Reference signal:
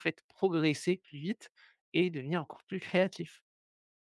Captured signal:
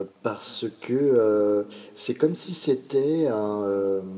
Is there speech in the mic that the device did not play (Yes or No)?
Yes